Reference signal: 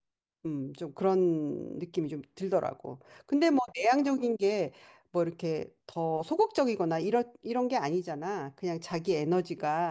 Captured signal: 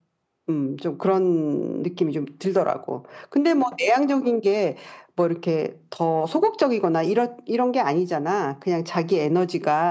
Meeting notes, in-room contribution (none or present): none